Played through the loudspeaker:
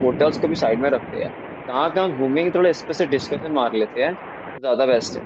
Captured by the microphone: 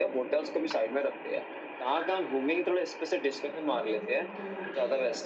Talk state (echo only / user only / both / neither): both